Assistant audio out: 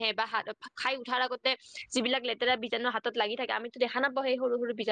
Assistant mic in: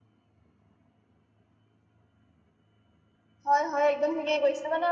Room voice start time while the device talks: 3 s

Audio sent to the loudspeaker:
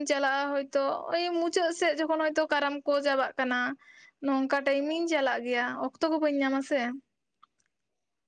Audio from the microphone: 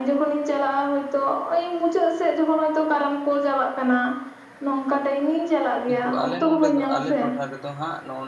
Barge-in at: 6 s

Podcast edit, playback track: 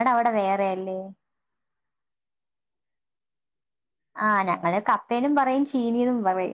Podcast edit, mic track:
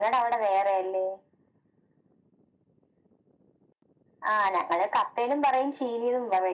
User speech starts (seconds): none

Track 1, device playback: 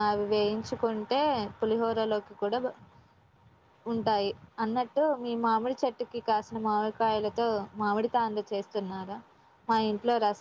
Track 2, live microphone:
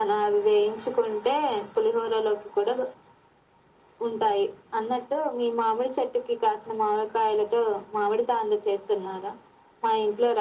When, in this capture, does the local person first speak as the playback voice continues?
none

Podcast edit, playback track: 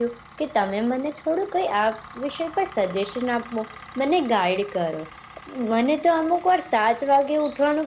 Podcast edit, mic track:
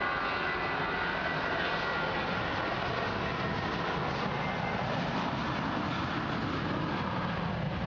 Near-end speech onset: none

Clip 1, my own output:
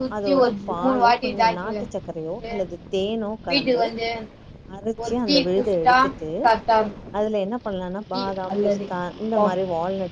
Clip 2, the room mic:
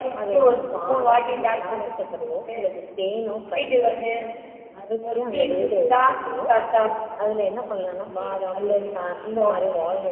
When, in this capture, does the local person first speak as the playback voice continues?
none

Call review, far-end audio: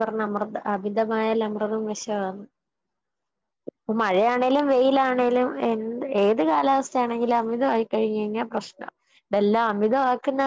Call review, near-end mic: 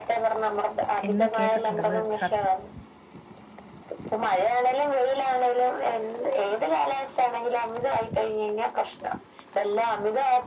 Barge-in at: 1 s

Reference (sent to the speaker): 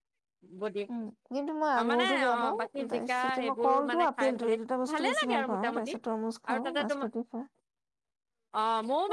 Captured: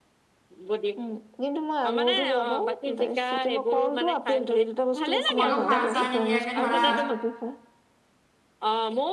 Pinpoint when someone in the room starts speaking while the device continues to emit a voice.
5 s

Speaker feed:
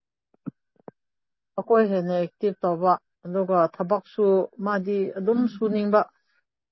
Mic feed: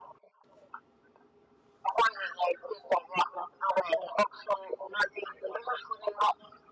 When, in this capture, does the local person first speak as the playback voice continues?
none

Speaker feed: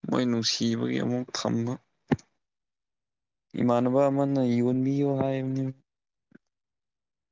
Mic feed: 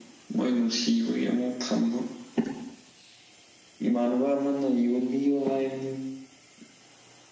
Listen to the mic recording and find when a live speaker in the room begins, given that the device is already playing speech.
none

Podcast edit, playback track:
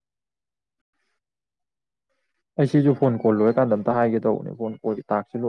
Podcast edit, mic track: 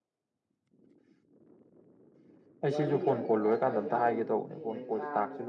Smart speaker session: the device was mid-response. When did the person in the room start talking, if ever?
3 s

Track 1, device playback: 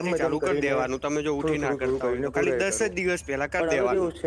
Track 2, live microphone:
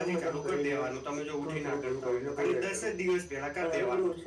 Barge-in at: none

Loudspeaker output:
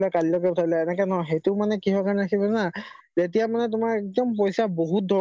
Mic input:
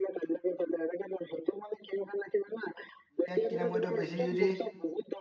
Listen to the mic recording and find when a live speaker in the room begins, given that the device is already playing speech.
3 s

